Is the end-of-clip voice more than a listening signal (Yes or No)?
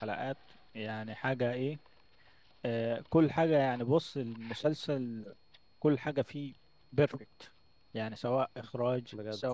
No